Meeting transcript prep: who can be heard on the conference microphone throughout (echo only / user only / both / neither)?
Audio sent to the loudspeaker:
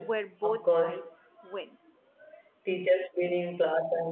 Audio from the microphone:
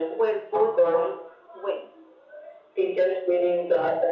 echo only